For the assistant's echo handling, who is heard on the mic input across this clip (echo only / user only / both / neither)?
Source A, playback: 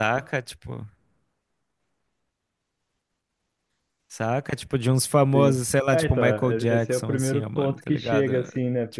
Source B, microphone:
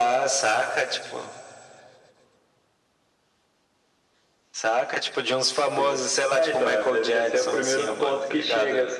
echo only